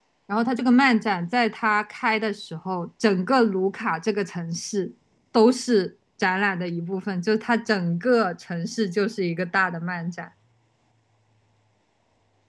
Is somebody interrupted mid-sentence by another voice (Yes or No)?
No